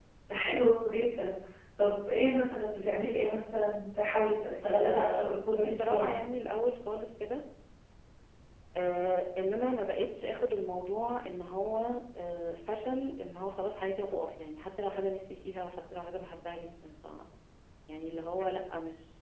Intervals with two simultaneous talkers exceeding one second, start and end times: 4.7-6.2

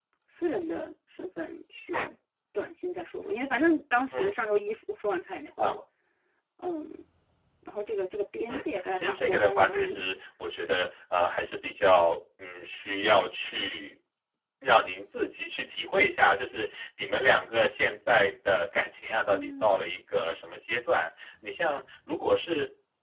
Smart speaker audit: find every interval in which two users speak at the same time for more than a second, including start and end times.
8.5-10.1

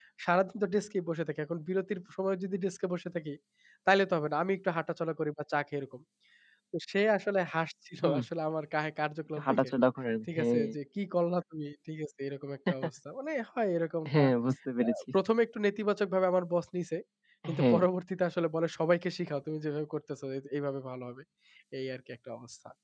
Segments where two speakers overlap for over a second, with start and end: none

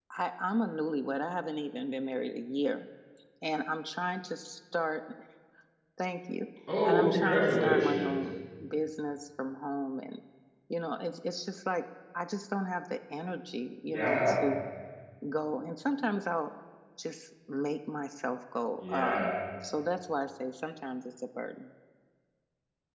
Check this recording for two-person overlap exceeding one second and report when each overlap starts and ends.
6.9-8.2

